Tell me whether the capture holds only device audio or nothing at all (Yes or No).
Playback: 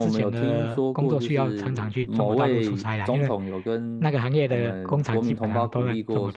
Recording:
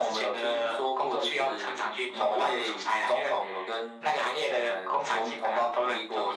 Yes